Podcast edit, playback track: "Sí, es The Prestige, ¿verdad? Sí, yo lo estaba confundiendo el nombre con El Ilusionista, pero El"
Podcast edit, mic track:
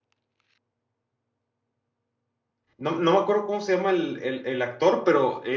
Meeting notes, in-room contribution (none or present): present